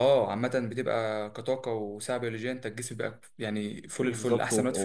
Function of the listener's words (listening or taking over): taking over